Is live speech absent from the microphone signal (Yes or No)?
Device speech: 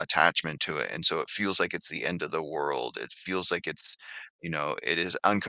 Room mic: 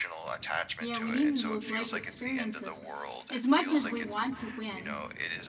No